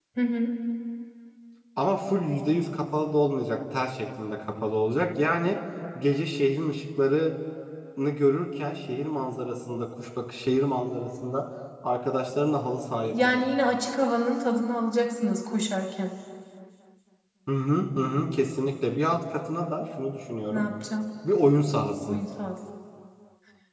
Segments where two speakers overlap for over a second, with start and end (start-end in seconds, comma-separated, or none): none